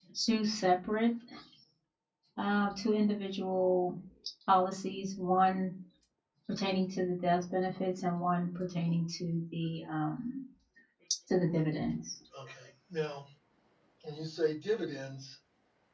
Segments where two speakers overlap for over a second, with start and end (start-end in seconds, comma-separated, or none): none